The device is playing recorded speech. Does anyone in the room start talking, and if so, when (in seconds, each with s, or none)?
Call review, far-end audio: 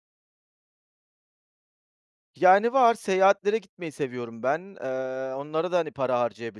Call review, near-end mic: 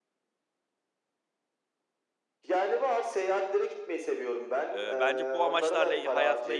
4.7 s